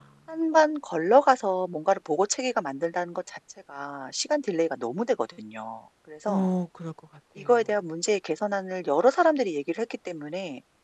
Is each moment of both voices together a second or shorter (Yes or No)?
Yes